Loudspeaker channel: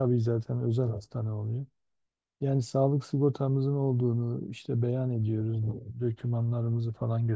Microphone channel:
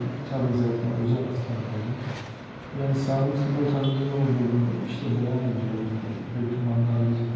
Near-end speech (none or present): none